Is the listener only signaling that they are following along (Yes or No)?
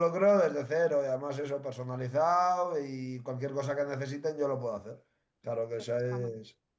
Yes